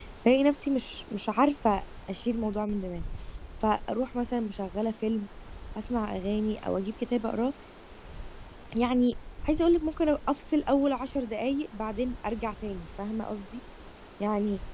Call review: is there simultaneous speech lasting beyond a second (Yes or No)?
No